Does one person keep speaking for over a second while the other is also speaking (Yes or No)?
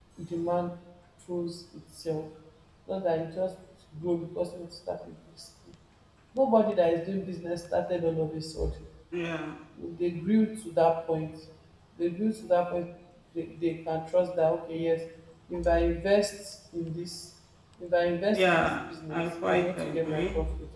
Yes